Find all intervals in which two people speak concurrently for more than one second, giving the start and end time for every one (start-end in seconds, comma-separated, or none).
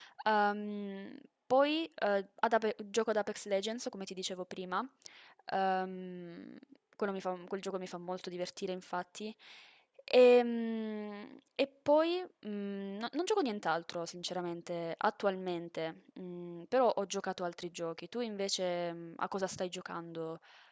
none